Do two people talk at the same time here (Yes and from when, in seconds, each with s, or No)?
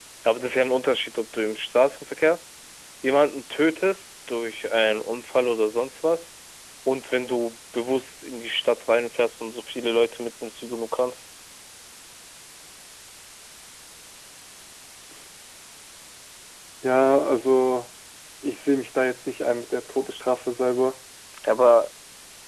No